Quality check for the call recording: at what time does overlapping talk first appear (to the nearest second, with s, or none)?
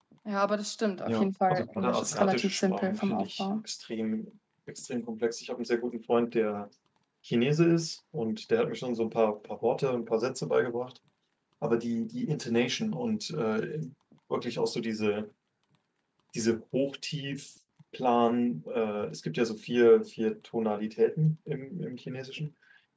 1 s